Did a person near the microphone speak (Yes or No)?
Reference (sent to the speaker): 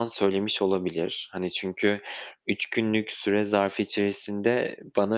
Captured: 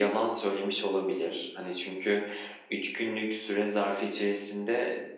No